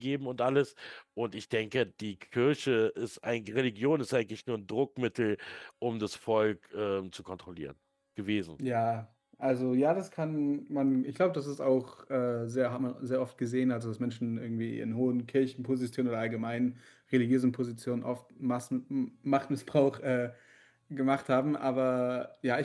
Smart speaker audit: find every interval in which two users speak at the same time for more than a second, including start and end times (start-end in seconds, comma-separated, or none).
none